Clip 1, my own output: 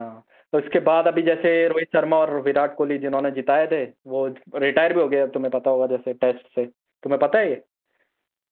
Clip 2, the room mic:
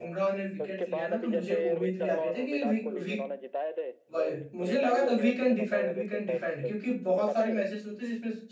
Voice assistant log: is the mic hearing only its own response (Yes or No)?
No